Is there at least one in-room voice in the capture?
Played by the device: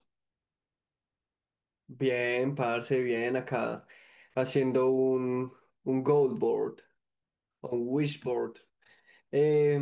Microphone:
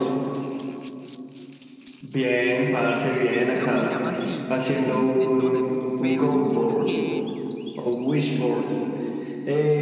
Yes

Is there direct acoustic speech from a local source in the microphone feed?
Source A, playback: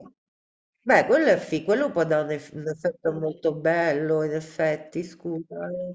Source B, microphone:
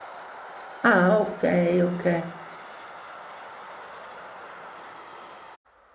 Yes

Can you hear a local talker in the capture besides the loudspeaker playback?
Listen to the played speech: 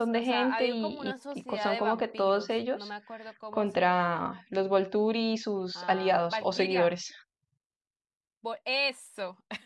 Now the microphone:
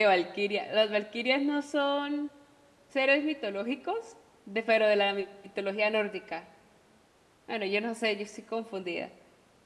Yes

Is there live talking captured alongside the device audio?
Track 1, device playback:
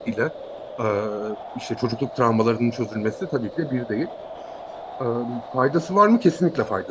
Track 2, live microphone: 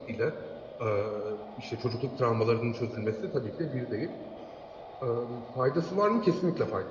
No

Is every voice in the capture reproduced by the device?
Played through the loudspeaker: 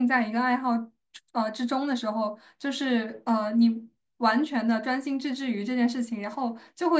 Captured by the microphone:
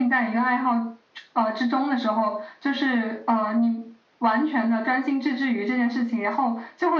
Yes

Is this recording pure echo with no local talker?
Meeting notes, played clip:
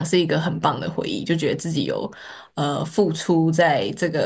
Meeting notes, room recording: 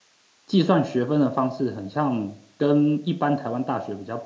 No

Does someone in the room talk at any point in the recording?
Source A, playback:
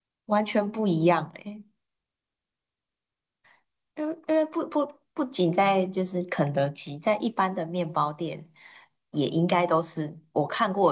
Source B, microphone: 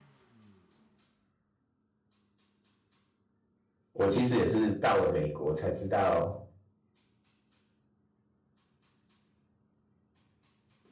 Yes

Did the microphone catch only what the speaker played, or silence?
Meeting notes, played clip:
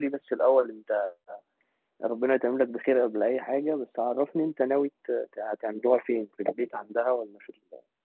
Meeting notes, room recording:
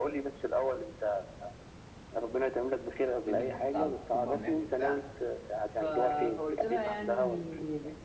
No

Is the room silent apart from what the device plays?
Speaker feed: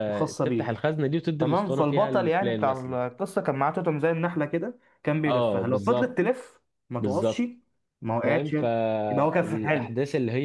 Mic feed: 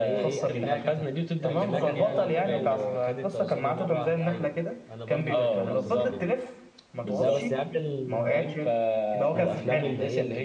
No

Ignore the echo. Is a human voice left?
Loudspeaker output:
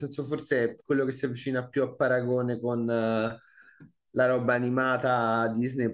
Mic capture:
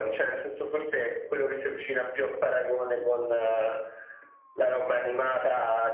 No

